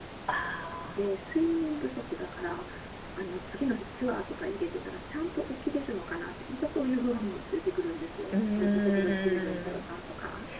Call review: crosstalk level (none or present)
present